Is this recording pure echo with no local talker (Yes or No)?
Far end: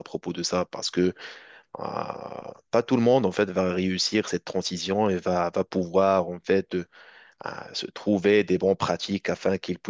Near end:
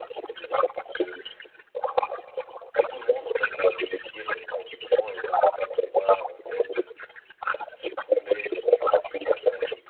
Yes